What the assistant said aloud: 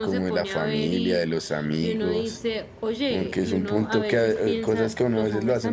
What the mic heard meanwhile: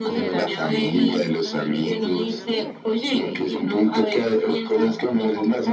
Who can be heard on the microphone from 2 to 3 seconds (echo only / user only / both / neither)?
both